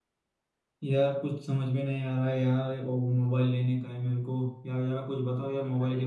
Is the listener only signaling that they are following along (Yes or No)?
Yes